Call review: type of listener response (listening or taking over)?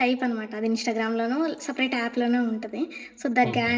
listening